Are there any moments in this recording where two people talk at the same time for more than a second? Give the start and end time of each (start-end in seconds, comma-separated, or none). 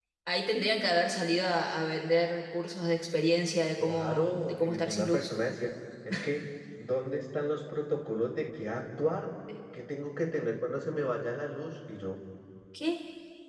3.8-5.3